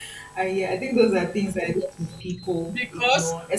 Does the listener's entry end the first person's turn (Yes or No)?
Yes